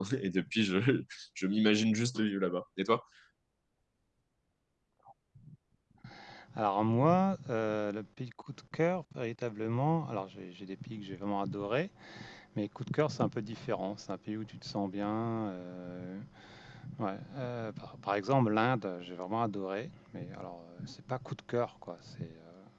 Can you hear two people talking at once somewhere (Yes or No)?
No